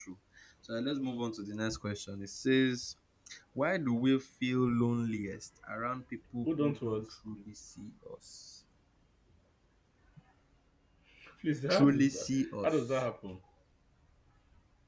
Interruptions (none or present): present